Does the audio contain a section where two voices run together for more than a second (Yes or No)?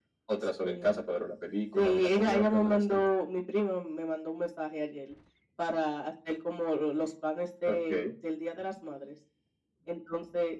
Yes